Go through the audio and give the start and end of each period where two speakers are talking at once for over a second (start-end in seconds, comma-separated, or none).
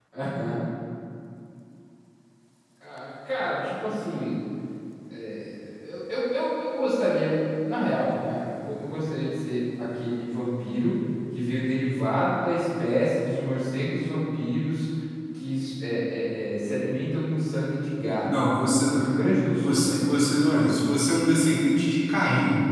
19.6-20.8